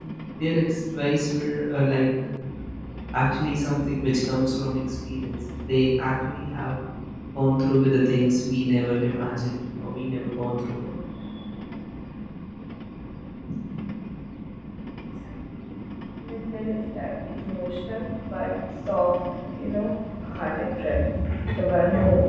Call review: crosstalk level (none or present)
none